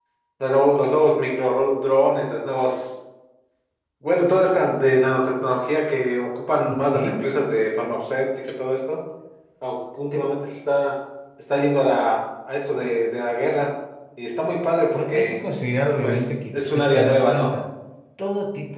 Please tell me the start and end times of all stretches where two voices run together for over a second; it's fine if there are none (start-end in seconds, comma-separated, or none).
16.0-17.6